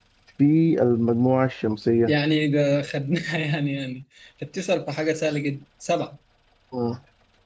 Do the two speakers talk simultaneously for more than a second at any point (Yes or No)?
No